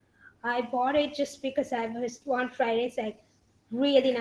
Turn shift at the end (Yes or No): No